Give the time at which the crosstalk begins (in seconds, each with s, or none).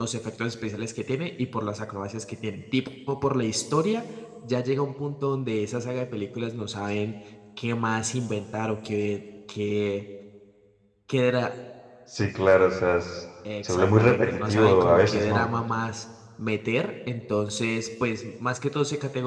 13.4 s